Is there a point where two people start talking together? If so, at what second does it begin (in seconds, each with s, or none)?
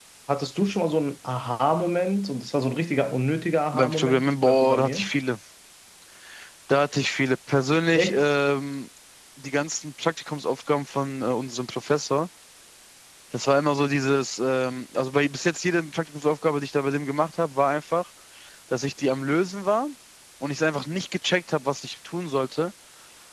3.7 s